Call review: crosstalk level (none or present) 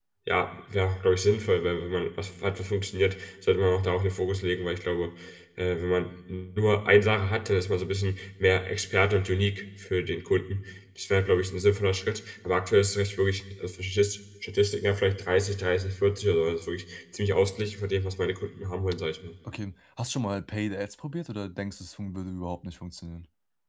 none